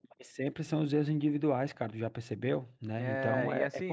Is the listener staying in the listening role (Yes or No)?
No